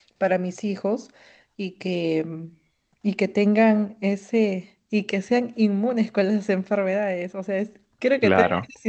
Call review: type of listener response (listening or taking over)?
listening